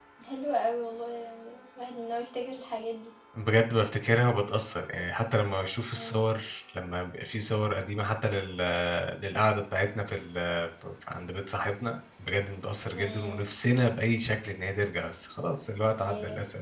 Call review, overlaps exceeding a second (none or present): none